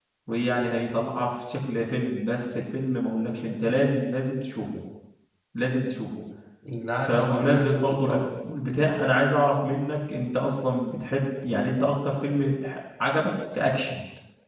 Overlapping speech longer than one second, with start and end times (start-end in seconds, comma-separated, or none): 7.0-8.3